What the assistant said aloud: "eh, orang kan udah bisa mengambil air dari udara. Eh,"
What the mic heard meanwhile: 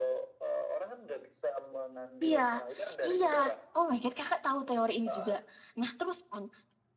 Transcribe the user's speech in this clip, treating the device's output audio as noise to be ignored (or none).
Iya, iya. Oh my God, kakak tahu teori ini juga. Nah, terus kan,